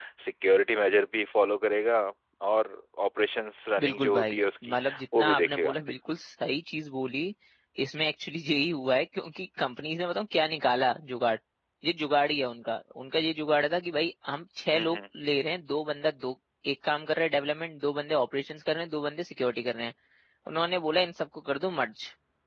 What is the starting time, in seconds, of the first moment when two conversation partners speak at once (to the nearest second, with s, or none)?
4 s